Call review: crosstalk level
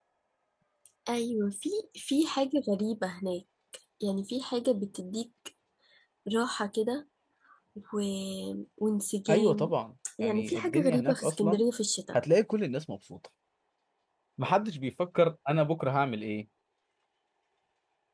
present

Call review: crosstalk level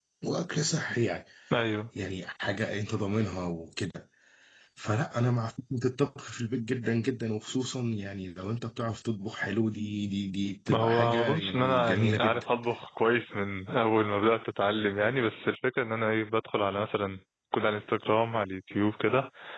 present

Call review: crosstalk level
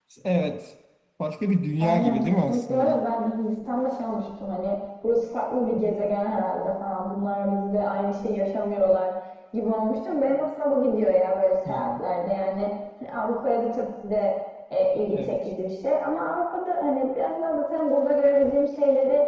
present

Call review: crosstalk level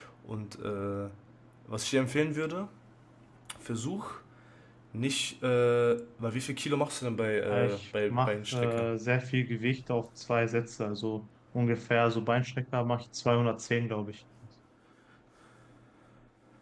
present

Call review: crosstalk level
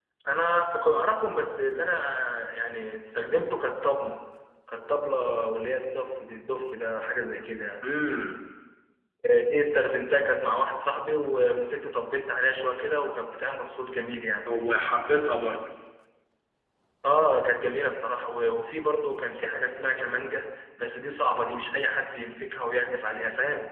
none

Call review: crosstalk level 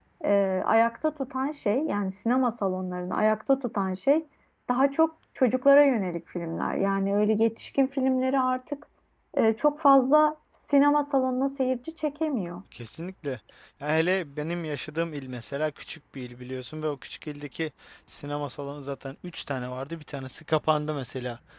none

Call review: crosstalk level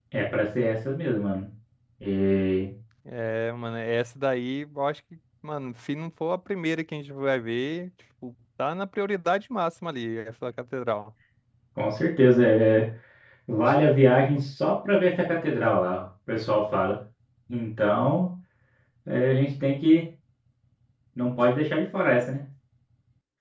none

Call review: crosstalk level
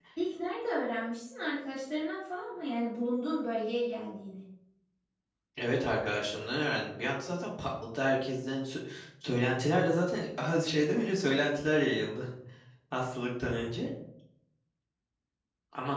none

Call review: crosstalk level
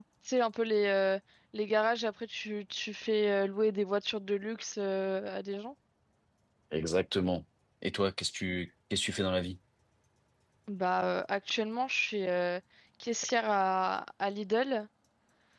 none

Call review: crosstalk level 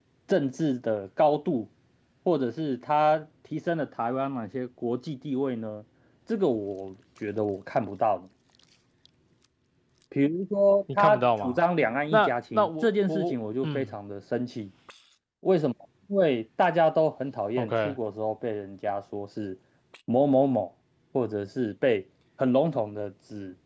present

